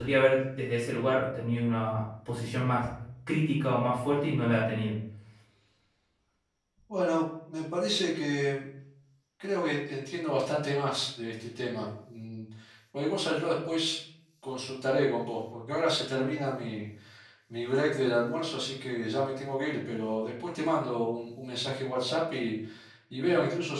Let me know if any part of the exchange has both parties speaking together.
No

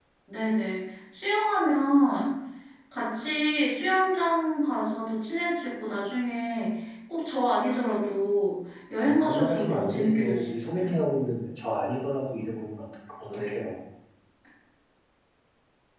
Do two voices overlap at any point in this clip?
Yes, from 9.2 s

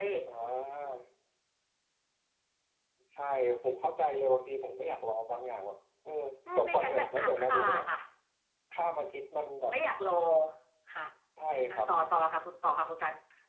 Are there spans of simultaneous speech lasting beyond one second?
Yes, from 6.5 s

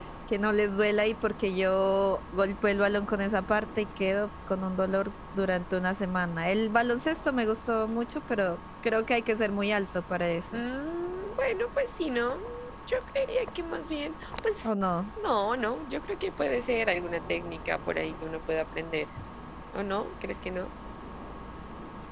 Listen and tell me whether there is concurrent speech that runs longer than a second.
No

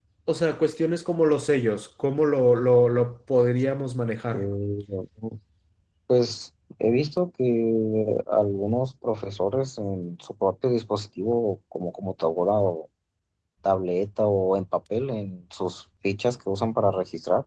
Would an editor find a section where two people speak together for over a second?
No

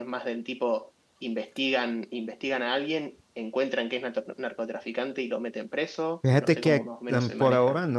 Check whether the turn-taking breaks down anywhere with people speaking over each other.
Yes, from 6.2 s

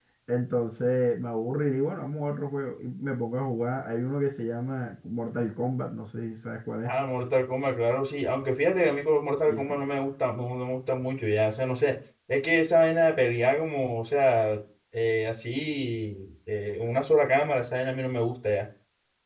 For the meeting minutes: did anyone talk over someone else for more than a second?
No

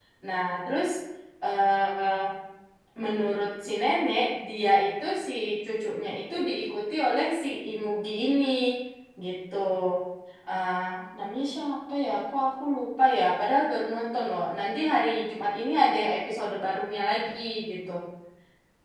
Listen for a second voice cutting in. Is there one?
No

